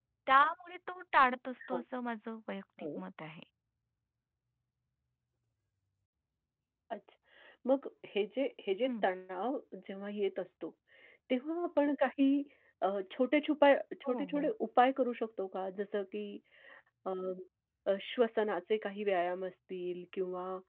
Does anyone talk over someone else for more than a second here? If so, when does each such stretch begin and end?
none

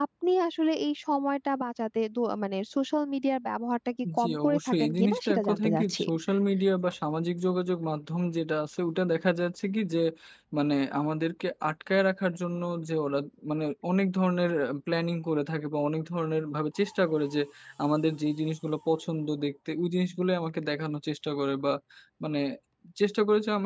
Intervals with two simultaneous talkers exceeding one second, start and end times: 4.2-6.0

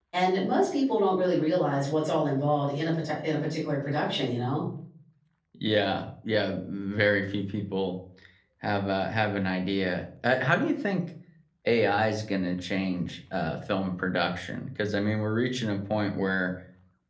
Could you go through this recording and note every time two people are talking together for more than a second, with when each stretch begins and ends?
none

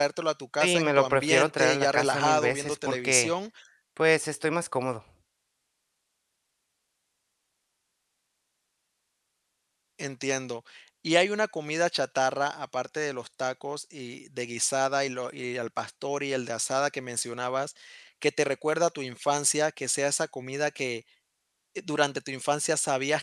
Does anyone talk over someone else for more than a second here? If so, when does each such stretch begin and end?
0.6-3.3

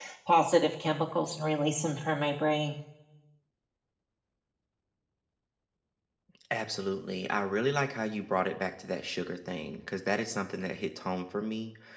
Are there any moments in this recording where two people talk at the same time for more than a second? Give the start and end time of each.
none

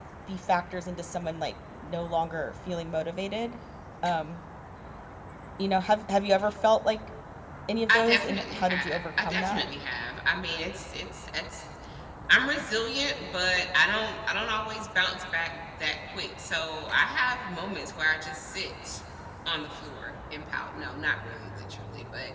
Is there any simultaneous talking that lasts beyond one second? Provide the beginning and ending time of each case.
7.9-9.6

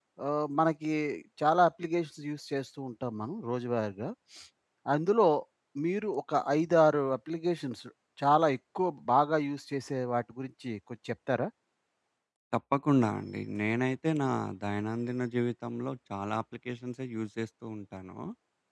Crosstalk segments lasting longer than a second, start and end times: none

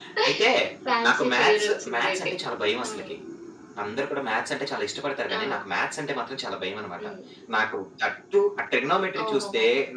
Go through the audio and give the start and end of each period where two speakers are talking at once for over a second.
1.1-2.3

